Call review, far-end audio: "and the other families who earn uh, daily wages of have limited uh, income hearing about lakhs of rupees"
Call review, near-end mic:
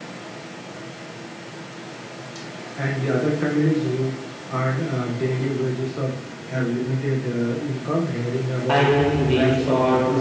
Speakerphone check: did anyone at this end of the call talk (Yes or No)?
Yes